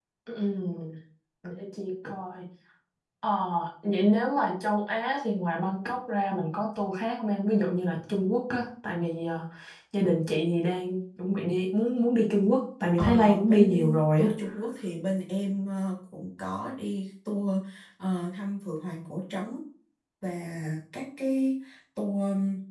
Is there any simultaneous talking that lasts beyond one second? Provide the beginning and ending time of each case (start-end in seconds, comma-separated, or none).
13.0-14.3